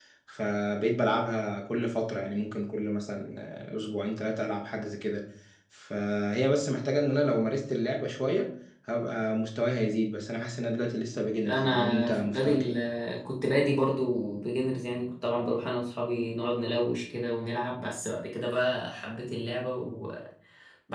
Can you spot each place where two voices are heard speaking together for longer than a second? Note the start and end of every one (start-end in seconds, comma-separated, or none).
11.4-12.8